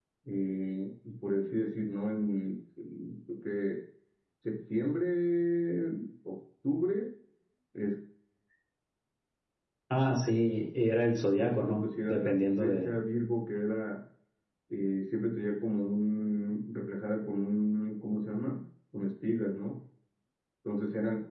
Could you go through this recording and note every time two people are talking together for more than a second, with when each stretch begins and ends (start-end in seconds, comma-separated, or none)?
11.4-12.9